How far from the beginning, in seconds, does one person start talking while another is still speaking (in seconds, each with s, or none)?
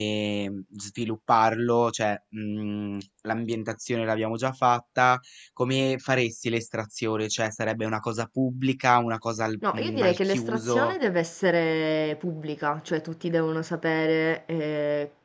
9.6 s